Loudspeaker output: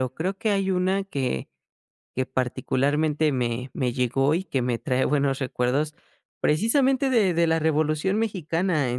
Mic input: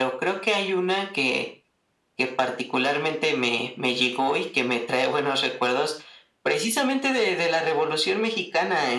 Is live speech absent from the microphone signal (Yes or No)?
Yes